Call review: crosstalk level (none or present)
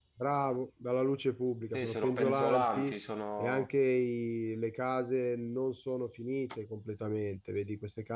present